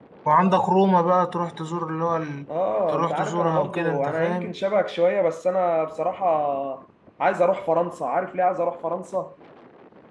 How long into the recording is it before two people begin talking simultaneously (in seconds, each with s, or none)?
2.9 s